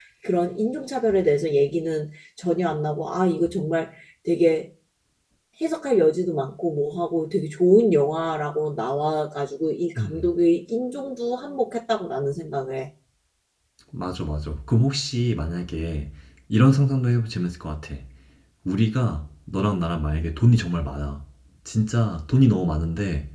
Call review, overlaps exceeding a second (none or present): none